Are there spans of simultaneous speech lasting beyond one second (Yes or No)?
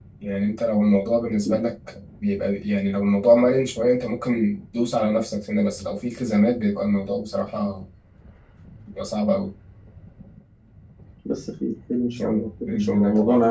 Yes